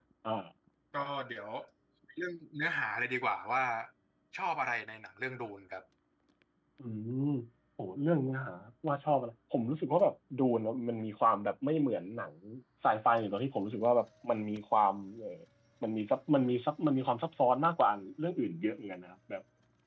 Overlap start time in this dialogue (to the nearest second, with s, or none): none